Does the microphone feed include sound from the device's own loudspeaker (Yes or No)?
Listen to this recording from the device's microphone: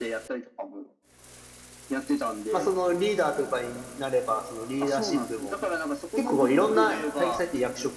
Yes